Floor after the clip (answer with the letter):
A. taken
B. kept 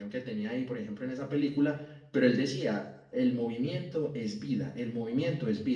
B